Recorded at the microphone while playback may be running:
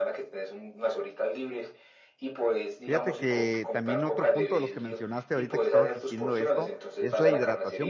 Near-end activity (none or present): present